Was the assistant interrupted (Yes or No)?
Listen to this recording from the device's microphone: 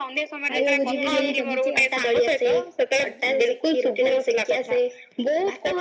Yes